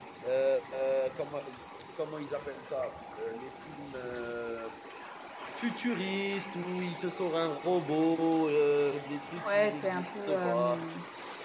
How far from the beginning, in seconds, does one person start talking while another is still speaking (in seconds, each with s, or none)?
9.4 s